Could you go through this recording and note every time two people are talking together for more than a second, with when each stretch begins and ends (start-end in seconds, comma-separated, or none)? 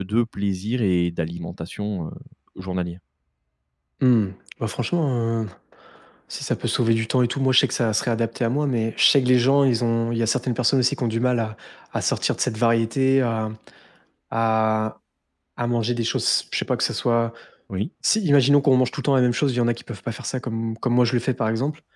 none